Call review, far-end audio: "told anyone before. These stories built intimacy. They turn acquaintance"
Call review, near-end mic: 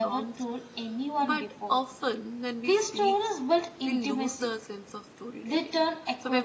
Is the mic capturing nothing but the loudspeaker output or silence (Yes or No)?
No